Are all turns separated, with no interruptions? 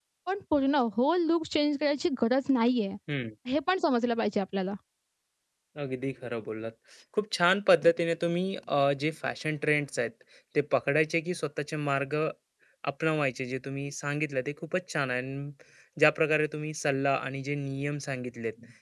Yes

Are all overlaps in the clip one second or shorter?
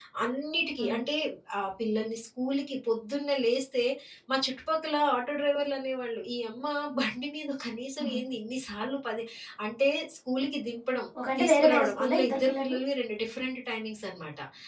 No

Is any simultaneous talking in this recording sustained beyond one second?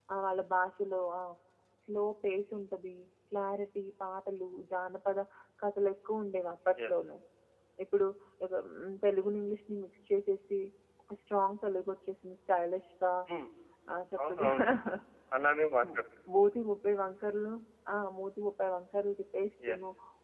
No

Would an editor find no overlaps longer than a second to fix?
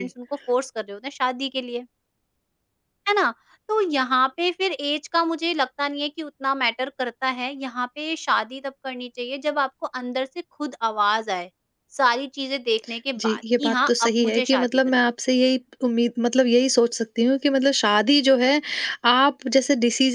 No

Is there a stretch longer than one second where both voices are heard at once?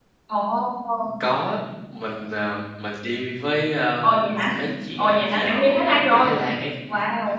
Yes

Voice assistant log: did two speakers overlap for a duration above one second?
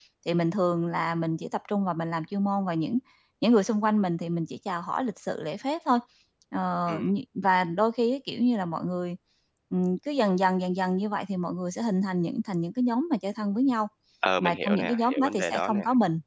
Yes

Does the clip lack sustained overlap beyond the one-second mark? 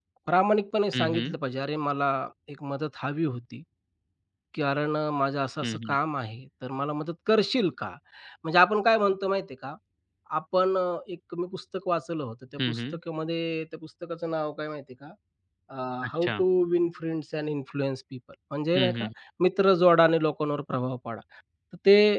Yes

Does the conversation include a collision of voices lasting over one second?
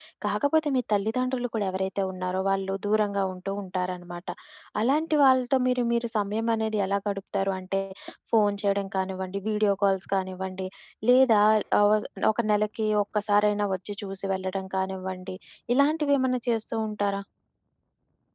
No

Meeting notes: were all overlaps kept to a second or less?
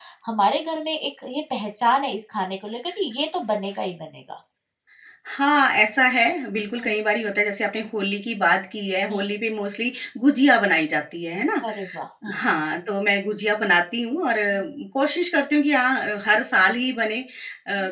Yes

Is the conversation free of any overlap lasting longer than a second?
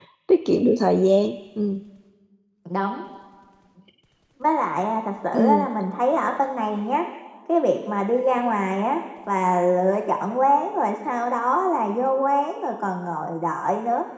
Yes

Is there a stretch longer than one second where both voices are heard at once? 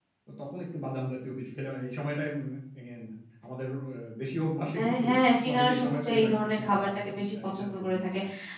Yes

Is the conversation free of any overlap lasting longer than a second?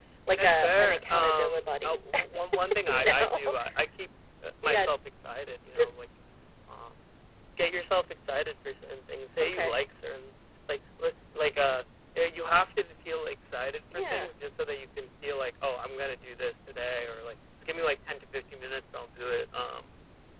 No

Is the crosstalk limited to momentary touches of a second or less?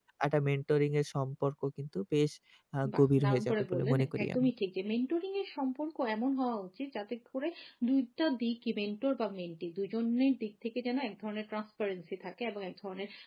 No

